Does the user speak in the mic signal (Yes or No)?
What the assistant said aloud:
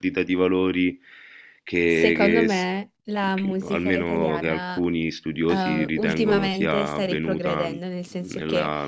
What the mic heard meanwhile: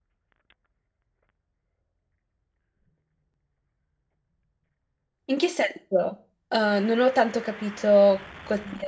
Yes